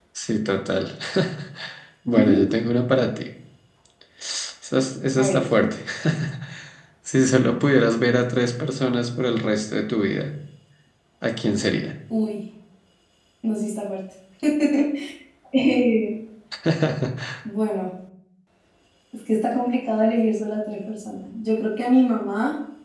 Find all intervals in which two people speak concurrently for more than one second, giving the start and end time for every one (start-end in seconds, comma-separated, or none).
none